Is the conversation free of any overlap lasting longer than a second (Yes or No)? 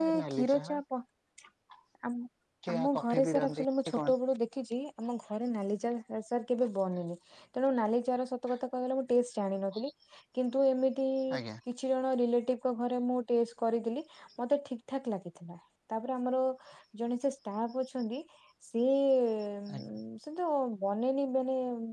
No